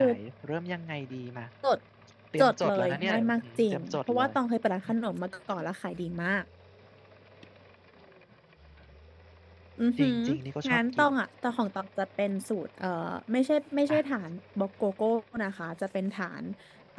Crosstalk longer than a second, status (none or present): present